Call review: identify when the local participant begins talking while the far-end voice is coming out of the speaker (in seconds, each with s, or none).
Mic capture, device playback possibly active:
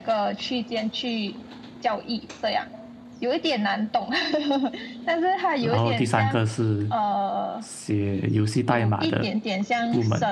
5.6 s